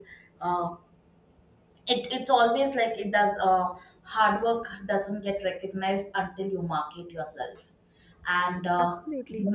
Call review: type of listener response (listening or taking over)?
listening